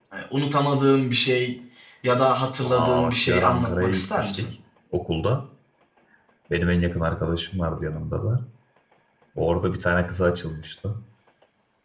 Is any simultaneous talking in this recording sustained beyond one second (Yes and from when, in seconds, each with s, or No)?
Yes, from 2.6 s